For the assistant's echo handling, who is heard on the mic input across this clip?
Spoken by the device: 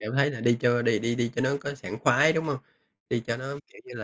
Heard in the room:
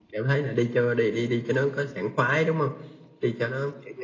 echo only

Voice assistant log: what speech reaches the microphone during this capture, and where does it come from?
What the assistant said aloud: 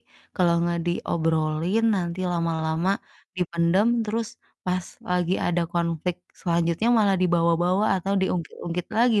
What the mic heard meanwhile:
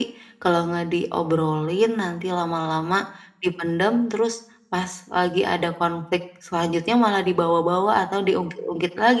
echo only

